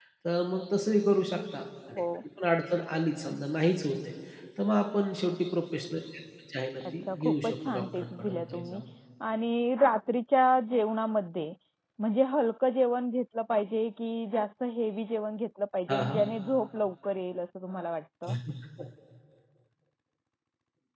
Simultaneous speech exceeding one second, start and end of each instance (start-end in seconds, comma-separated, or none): 6.9-8.8